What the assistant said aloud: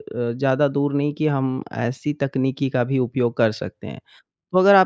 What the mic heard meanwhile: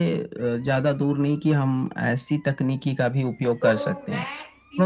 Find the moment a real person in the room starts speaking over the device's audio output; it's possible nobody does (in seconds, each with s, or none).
3.6 s